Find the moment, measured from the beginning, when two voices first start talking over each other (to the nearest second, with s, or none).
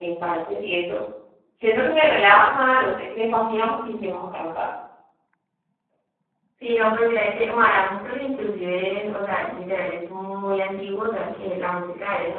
none